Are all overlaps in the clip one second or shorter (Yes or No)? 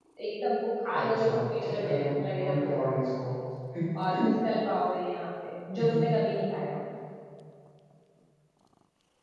No